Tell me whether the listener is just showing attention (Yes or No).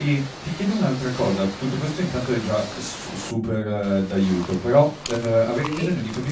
Yes